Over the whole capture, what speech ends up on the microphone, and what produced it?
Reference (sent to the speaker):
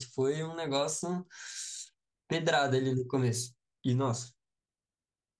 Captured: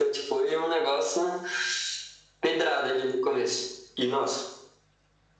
echo only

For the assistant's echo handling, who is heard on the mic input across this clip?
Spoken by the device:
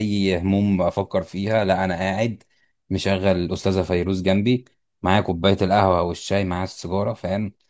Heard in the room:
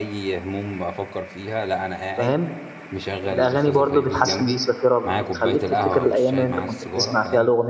both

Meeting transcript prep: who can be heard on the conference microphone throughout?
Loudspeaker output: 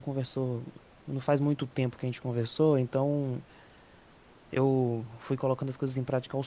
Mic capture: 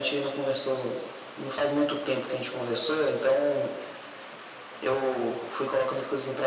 echo only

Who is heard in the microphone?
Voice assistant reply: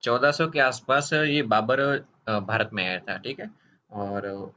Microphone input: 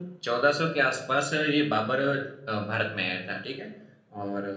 echo only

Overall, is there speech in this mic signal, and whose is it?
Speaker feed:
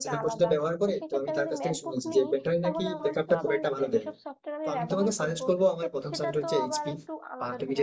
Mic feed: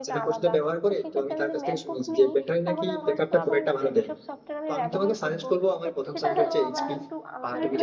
both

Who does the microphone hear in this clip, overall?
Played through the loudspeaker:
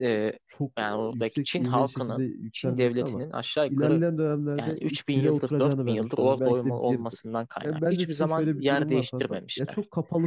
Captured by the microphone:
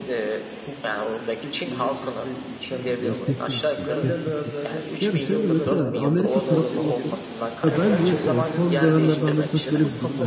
both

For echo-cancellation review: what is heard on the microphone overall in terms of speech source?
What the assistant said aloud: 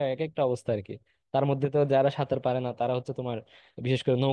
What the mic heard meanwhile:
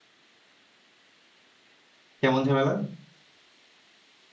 user only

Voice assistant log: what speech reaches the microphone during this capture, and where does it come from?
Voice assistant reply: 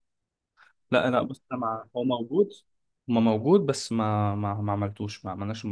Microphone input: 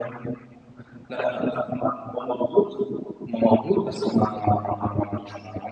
echo only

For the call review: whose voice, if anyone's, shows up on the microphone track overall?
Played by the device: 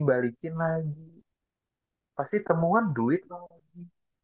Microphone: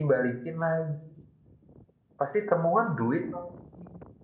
echo only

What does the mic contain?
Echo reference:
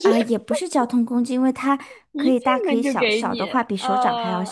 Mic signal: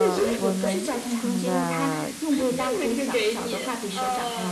both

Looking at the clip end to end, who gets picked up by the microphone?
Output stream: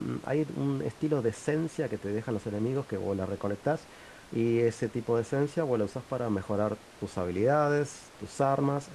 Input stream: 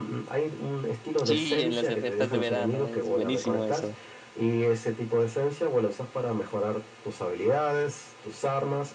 both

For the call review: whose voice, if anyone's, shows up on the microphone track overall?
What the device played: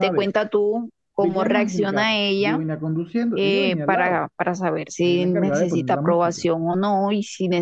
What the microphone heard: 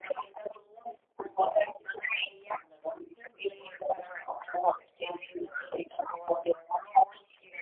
echo only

